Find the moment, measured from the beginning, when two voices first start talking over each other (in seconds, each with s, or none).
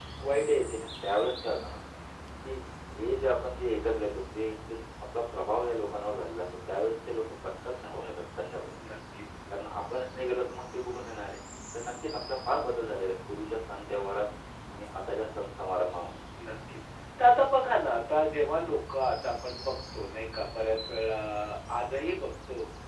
none